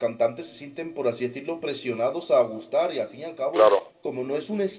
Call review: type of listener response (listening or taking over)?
listening